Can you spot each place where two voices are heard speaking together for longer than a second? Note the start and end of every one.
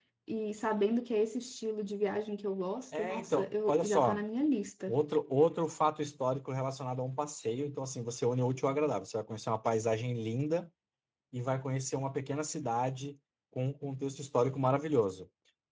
3.0-4.2

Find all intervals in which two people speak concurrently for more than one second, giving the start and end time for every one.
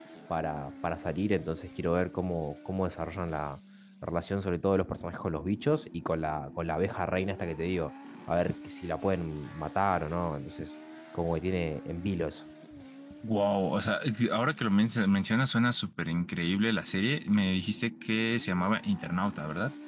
none

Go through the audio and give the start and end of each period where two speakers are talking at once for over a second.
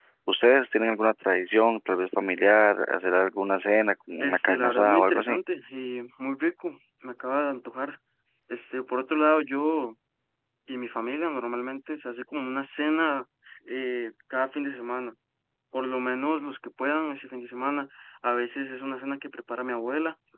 4.2-5.4

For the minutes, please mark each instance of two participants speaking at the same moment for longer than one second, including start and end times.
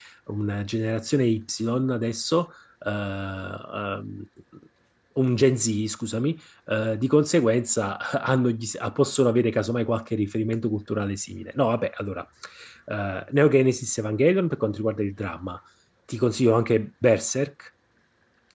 none

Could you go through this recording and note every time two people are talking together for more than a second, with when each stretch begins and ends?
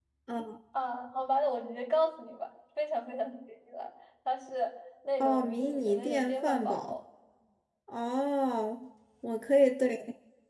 5.2-7.0

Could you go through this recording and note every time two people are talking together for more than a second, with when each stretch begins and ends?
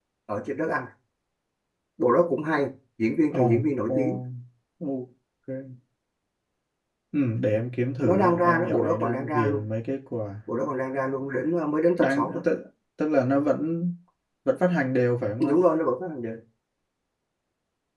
8.0-9.7

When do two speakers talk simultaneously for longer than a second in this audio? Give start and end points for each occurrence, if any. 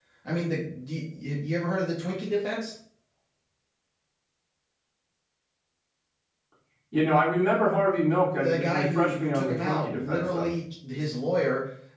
8.4-10.5

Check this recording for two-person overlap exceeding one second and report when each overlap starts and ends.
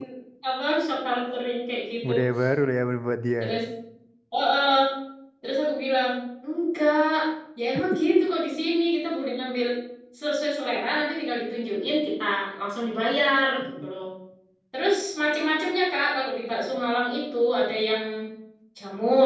none

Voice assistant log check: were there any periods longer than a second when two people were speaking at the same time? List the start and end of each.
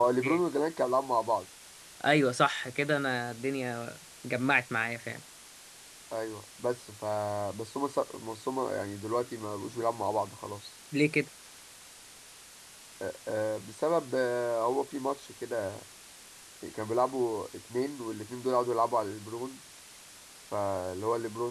none

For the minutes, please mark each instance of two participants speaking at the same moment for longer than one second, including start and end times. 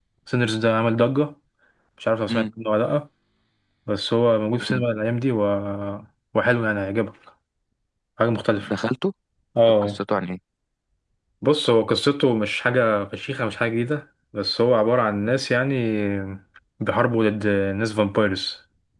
none

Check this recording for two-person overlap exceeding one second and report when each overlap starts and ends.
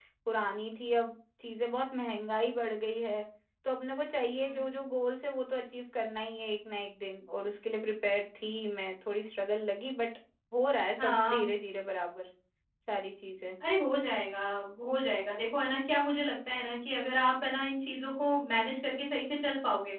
none

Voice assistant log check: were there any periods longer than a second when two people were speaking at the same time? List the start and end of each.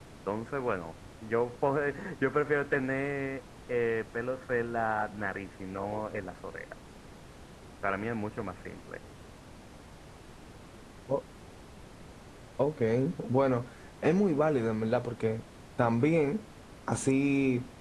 none

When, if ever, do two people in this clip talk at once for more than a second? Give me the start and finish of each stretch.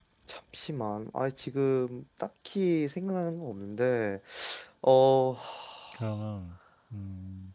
none

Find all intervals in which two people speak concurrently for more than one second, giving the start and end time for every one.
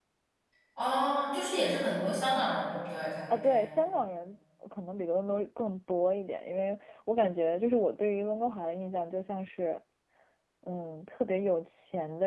none

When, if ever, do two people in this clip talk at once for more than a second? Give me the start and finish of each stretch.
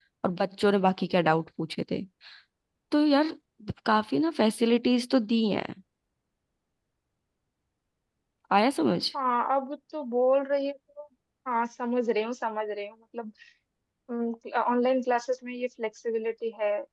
none

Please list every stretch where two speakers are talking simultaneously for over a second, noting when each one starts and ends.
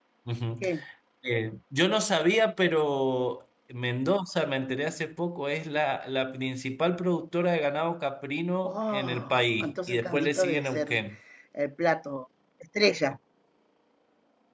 8.6-11.0

